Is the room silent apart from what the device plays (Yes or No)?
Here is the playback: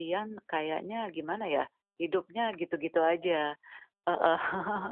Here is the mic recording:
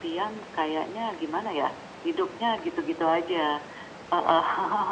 Yes